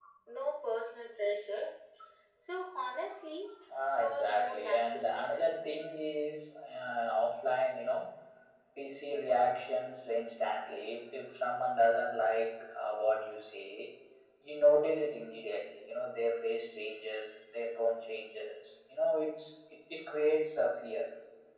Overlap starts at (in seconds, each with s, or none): 4.0 s